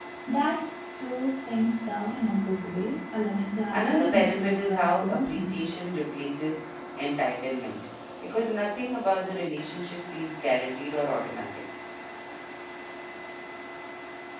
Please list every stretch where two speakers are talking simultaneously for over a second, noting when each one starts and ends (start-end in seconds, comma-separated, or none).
3.7-5.5